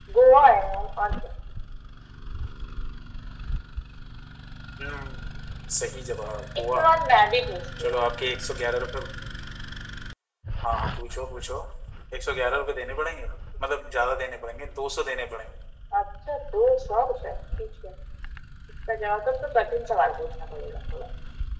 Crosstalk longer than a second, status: none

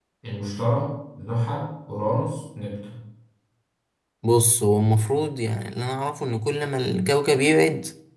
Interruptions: none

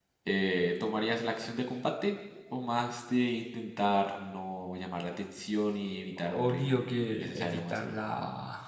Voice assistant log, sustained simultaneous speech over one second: present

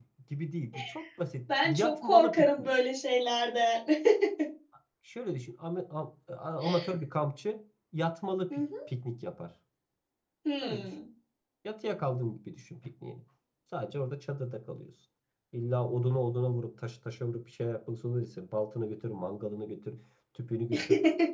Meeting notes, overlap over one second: present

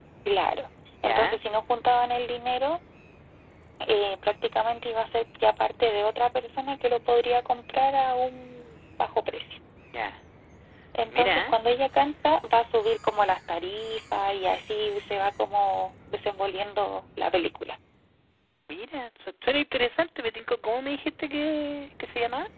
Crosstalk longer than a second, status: none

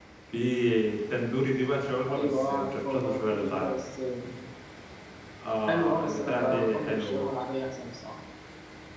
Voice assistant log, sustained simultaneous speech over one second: present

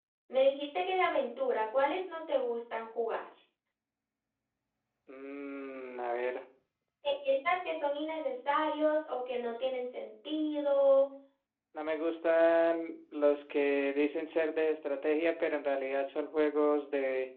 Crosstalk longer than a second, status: none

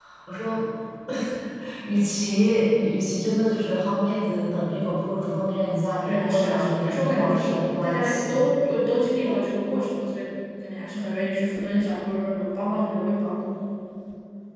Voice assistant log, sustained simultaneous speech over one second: present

